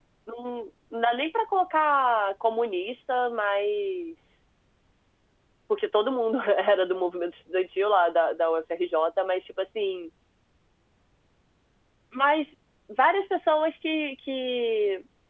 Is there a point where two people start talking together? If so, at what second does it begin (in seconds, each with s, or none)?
none